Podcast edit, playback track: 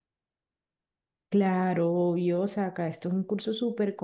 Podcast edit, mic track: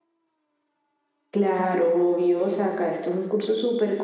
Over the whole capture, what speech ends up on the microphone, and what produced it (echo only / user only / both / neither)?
echo only